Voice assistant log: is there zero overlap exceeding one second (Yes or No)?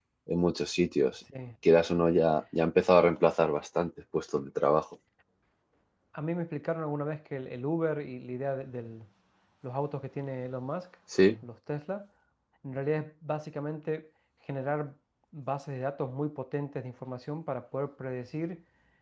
Yes